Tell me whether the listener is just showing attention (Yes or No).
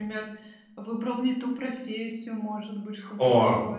No